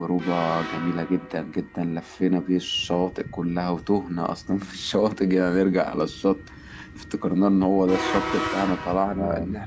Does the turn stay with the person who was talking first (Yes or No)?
Yes